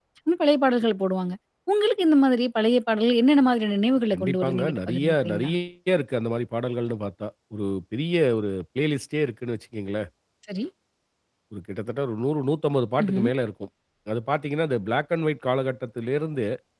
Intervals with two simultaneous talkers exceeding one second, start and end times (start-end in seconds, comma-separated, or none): 4.1-5.5